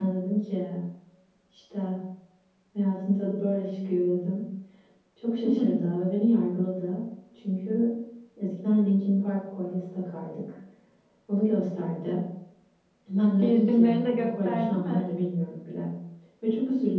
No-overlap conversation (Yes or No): No